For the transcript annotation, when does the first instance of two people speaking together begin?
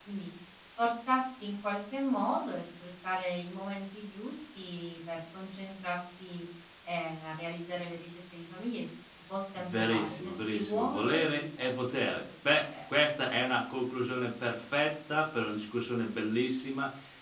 10 s

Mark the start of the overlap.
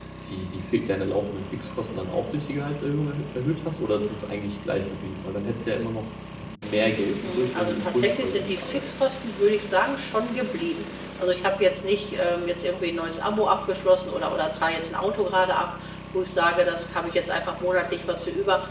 7 s

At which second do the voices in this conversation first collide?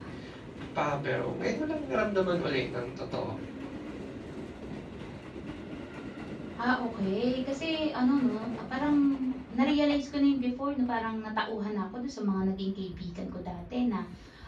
none

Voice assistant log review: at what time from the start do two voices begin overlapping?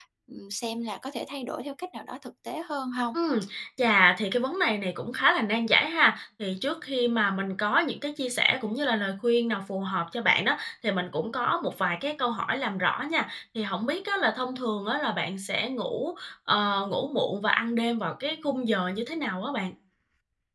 none

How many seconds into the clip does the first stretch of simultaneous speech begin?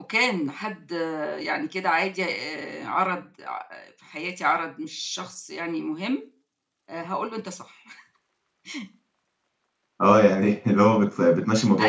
none

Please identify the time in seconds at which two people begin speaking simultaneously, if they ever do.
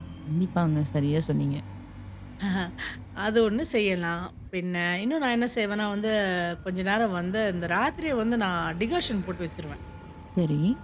none

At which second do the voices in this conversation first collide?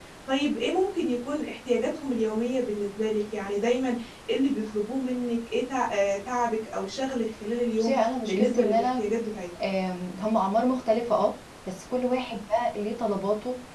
8 s

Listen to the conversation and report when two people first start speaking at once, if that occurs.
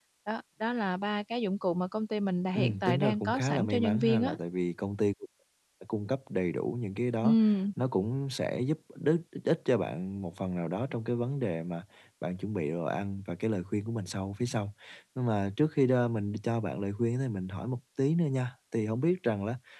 3 s

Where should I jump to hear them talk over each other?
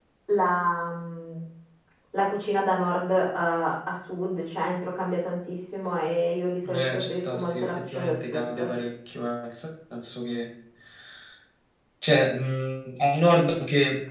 7 s

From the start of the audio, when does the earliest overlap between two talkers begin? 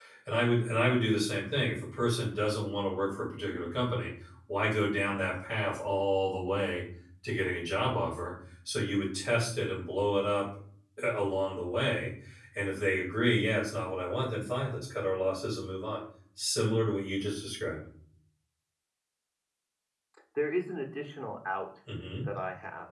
none

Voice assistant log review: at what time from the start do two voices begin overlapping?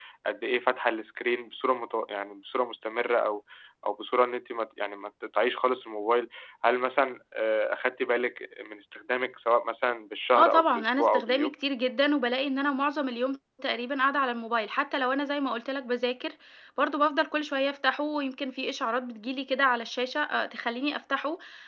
10 s

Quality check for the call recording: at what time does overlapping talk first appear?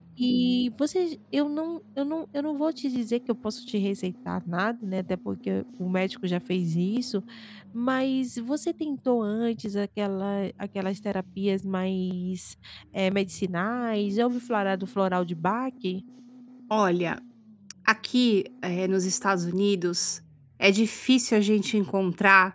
none

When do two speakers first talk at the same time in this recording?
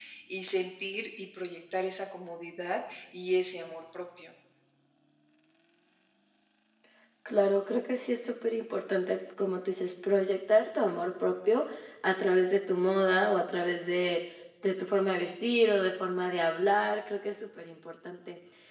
none

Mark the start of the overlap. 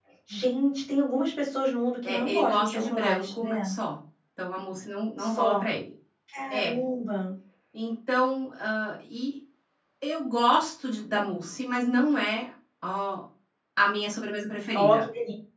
2 s

